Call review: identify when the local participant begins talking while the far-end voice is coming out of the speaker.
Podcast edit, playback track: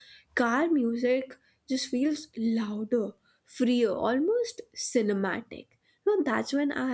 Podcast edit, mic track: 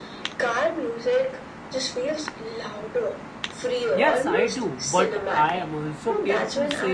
3.9 s

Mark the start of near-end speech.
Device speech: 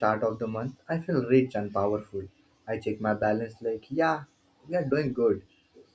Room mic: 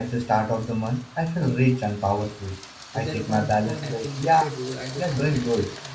2.9 s

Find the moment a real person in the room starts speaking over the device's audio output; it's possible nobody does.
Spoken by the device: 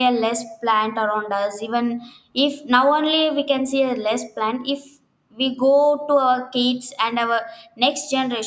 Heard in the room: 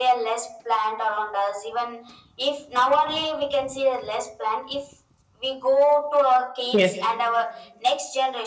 6.7 s

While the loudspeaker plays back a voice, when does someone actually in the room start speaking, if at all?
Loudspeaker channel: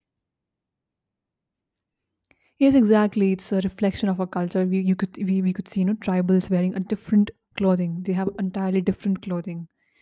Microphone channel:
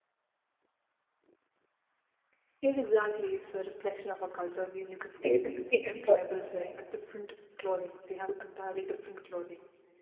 5.0 s

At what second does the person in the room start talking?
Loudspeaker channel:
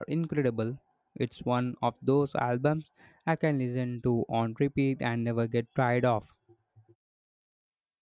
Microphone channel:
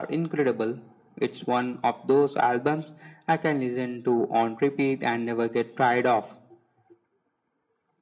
none

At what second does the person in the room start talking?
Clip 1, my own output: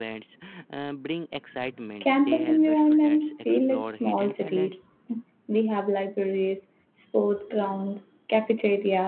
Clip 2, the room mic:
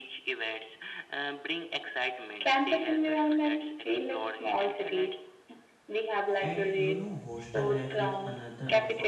6.4 s

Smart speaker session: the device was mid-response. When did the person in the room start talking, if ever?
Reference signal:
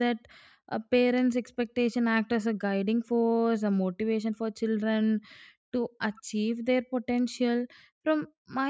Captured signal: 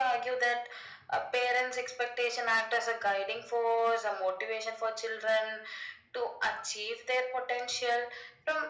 none

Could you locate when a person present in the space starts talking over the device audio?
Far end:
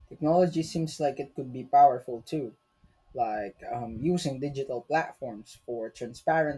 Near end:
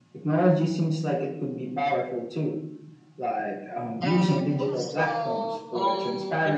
4.0 s

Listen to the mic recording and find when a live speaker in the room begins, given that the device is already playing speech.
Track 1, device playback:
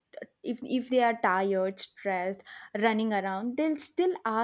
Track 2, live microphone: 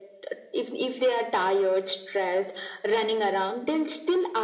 none

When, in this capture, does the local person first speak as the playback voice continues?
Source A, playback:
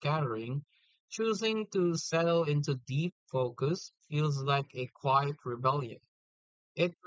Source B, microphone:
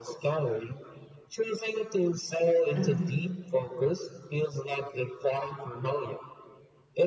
2.8 s

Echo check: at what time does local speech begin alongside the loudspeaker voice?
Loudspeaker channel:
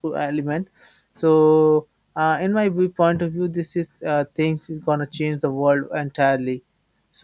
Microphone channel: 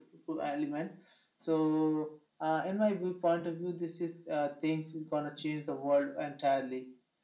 none

